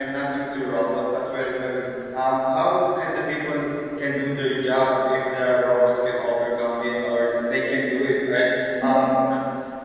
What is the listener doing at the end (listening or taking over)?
listening